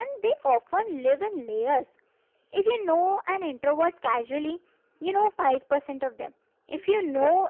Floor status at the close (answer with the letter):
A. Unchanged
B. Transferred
A